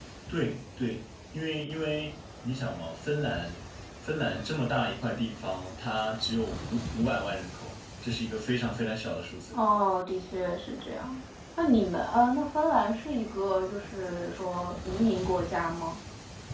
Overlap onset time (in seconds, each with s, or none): none